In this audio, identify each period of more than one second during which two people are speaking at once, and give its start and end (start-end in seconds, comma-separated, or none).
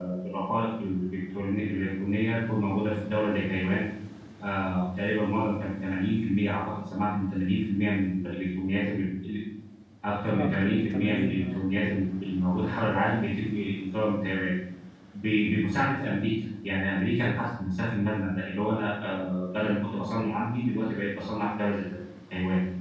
10.4-11.6